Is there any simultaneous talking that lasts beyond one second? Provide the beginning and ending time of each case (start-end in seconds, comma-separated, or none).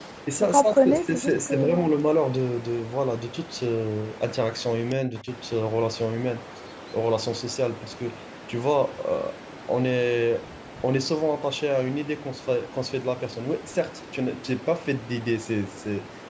0.5-1.8